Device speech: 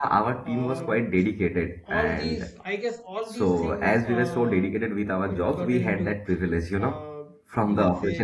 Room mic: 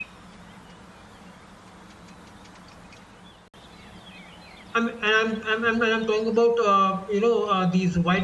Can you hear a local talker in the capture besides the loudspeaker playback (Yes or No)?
Yes